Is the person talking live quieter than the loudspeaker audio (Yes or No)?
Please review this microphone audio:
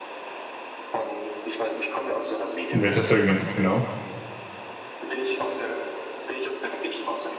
No